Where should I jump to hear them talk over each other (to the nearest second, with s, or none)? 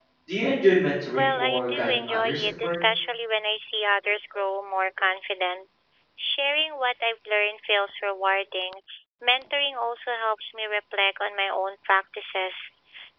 1 s